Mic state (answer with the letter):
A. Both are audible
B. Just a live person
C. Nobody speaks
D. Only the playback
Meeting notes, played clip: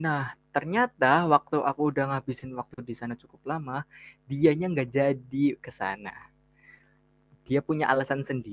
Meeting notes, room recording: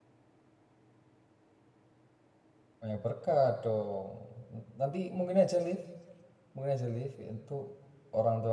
B